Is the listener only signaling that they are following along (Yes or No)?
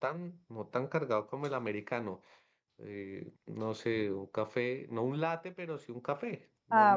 No